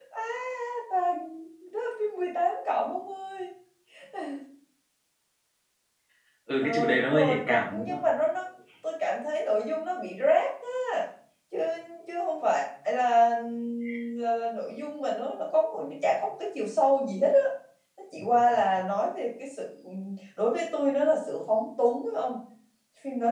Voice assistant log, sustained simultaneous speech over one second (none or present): present